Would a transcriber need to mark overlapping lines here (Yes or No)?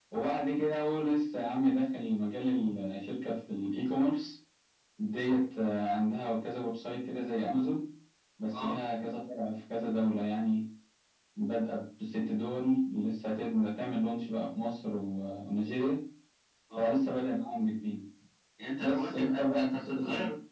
Yes